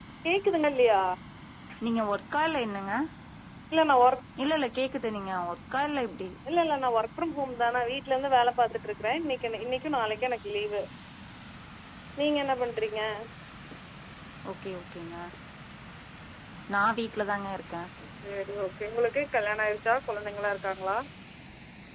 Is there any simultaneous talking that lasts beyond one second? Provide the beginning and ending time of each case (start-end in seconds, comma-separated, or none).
none